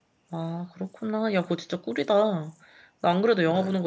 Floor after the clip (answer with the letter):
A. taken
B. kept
B